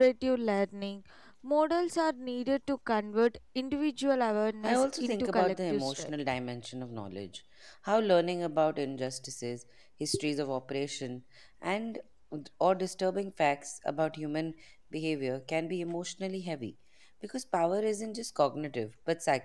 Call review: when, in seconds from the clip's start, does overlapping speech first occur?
5 s

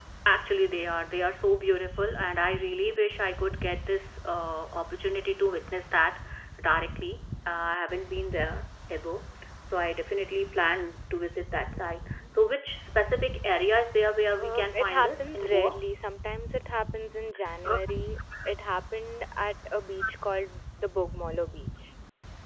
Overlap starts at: 14 s

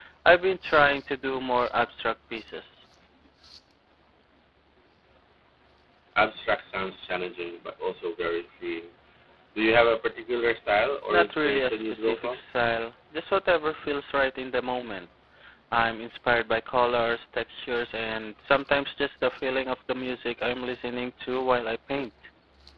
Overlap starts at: 11 s

